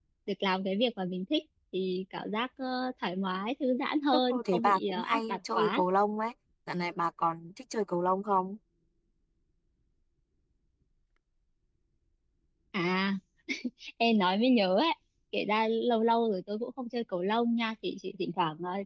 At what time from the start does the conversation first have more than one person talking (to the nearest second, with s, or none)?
4 s